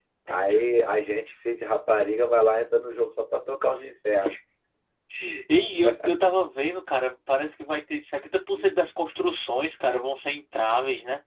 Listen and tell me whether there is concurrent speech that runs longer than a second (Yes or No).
No